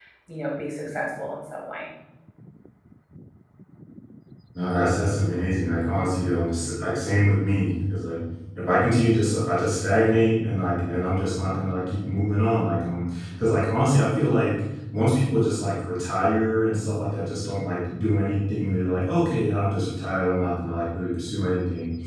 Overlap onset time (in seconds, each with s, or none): none